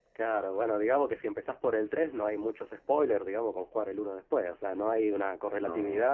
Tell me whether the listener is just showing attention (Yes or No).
Yes